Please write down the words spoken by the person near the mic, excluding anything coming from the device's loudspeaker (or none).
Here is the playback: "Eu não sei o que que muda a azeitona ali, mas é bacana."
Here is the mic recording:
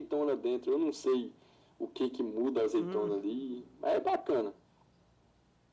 Hum.